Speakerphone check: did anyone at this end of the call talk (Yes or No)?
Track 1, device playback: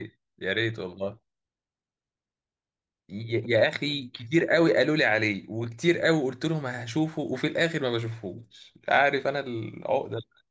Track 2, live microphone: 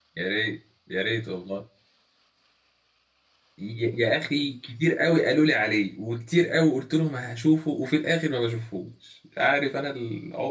No